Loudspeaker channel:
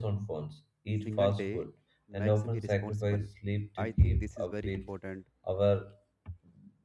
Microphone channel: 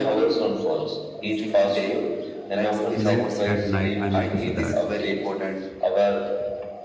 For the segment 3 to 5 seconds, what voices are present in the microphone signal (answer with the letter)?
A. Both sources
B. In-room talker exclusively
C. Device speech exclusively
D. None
A